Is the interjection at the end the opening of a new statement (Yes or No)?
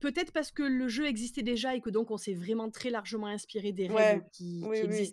Yes